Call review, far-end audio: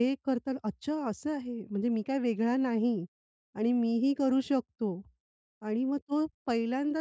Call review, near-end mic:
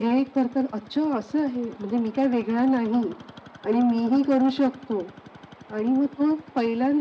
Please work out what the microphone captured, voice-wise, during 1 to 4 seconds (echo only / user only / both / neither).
echo only